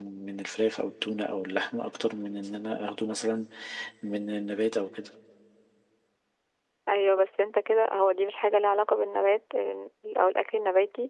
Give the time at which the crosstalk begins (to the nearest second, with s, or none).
none